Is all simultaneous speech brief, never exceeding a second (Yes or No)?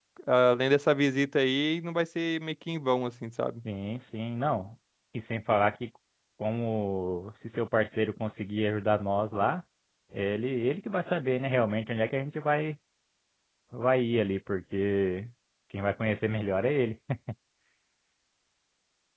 Yes